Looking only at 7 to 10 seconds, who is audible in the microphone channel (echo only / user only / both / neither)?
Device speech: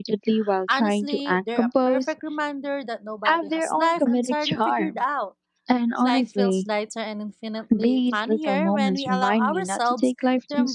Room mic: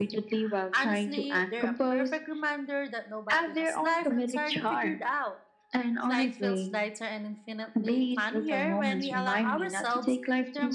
echo only